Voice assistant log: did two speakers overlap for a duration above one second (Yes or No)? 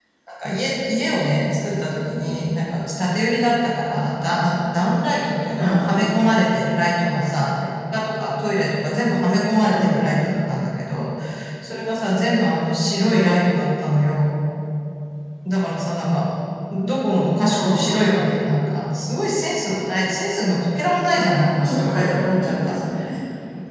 Yes